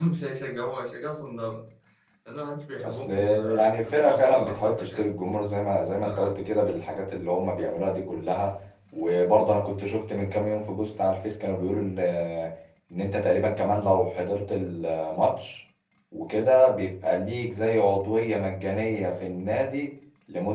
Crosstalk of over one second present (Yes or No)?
Yes